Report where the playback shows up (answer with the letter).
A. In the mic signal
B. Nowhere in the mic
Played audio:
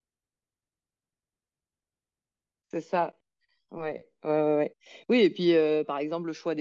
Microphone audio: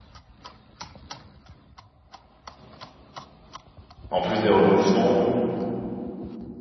B